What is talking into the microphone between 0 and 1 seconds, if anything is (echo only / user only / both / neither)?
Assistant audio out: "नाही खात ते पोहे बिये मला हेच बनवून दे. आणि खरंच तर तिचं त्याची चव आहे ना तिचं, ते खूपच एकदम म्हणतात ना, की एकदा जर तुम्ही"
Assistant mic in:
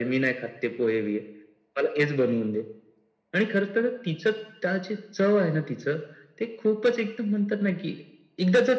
echo only